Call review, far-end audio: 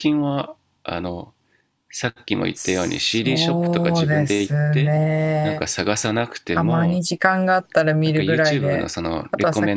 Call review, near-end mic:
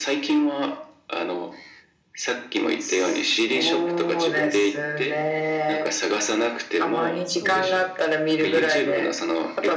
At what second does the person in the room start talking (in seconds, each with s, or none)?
7.4 s